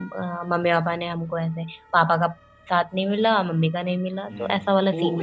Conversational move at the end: taking over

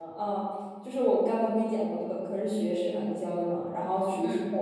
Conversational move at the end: listening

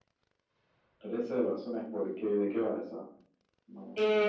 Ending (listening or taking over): taking over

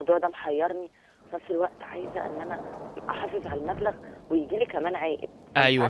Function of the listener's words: taking over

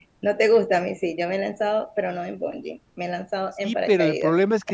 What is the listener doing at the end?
taking over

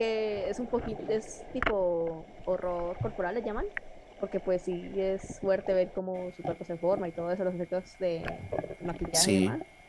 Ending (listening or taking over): listening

